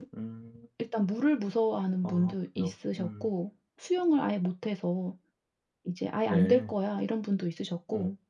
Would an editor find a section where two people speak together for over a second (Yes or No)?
Yes